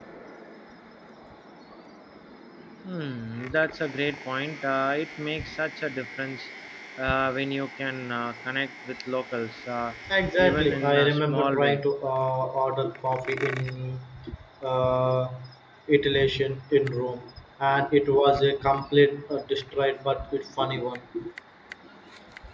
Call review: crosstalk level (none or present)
present